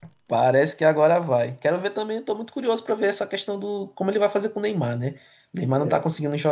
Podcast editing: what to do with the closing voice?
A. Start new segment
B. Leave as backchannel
B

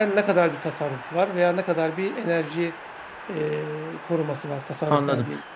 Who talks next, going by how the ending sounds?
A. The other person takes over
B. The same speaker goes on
A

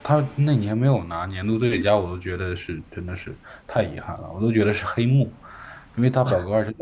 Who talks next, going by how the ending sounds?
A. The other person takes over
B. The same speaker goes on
B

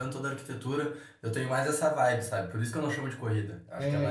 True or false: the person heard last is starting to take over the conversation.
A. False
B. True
B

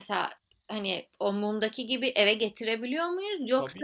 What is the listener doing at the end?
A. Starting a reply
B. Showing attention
A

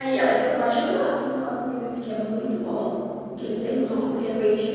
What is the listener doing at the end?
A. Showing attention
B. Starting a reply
A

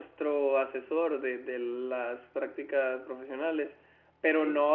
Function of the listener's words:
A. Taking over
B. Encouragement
B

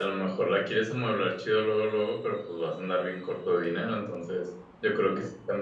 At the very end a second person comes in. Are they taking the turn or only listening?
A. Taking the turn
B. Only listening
B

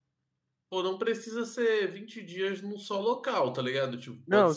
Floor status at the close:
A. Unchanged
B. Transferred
B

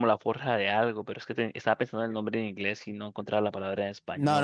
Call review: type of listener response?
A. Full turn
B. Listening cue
A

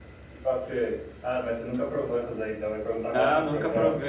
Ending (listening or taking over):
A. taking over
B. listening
A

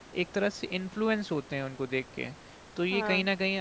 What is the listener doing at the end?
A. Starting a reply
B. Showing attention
B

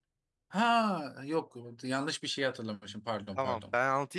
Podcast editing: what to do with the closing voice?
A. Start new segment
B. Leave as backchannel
A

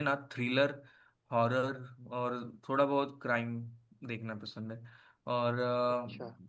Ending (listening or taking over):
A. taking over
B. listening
B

